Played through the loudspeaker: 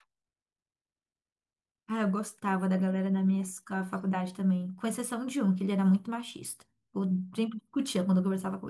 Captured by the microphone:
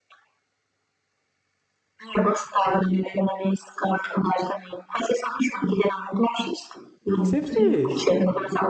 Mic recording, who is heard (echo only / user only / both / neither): both